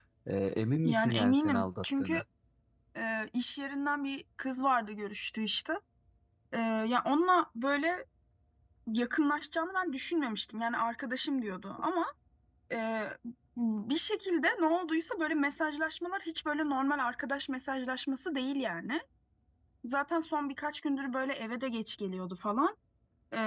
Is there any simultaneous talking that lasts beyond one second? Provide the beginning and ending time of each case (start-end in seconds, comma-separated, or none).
0.8-2.2